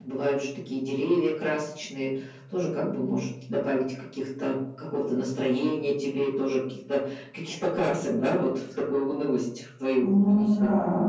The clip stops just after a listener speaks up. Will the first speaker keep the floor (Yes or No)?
No